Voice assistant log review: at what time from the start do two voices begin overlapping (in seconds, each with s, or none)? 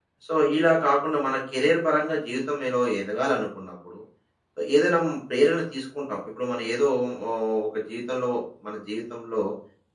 none